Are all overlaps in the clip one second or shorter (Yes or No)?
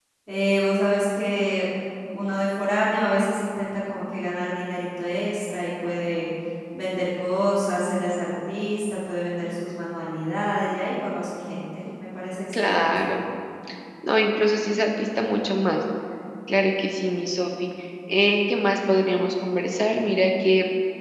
Yes